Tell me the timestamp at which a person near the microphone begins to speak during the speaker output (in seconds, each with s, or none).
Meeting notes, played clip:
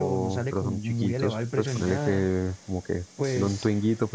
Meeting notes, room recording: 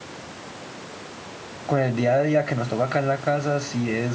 1.7 s